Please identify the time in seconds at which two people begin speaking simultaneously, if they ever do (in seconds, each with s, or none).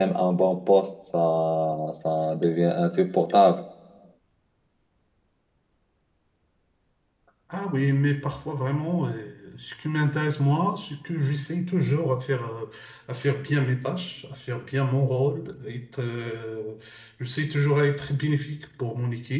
none